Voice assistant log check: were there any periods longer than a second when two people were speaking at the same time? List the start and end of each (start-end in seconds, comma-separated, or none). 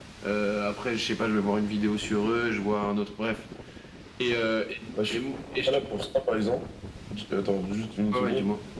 none